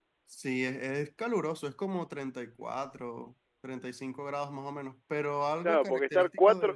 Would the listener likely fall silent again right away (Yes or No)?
No